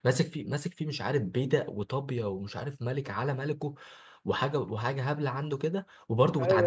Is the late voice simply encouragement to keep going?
Yes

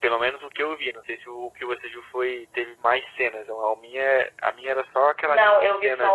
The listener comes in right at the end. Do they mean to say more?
Yes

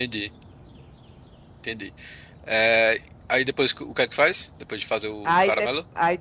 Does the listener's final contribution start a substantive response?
Yes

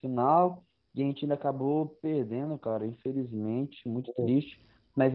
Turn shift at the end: No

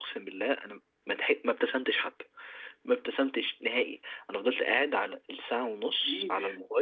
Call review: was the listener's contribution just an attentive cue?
Yes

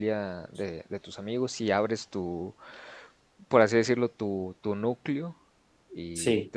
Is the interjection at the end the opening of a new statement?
No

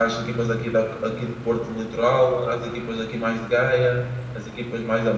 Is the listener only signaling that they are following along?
Yes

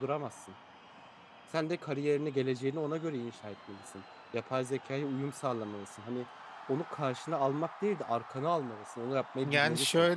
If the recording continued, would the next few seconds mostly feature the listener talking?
Yes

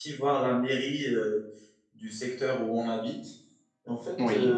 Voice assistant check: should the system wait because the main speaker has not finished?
Yes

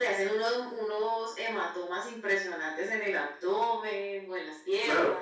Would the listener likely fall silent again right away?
No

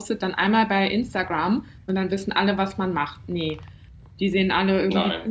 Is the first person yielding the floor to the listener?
No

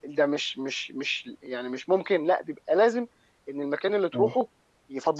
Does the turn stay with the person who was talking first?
Yes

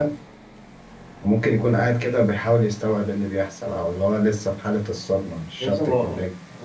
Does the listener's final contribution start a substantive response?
Yes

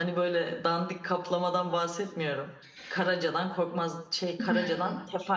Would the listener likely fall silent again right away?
Yes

